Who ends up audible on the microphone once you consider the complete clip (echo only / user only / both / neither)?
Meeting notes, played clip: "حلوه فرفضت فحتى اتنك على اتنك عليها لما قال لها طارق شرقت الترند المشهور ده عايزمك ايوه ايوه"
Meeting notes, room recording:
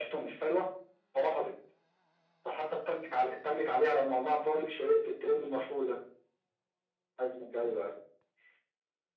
echo only